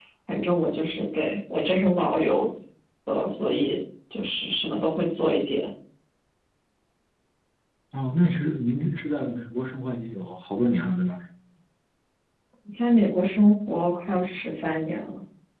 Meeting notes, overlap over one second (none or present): none